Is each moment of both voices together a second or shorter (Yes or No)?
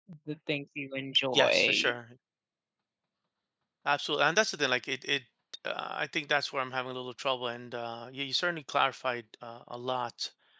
Yes